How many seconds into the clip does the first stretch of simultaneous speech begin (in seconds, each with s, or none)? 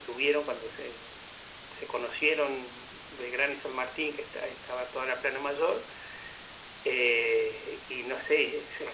none